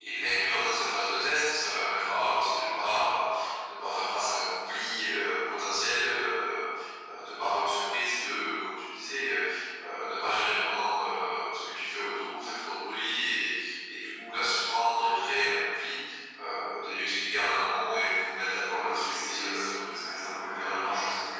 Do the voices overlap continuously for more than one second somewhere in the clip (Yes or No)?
Yes